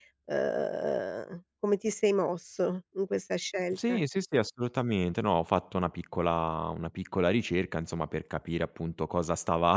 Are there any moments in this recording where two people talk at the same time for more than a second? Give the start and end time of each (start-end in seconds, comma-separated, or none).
none